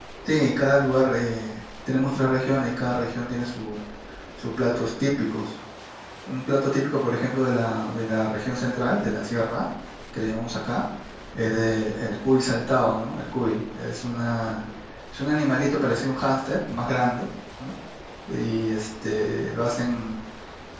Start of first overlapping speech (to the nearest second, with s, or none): none